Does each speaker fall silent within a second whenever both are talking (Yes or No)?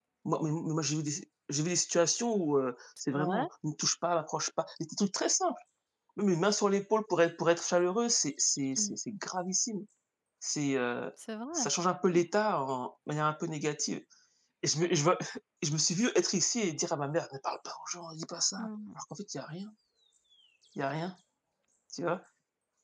Yes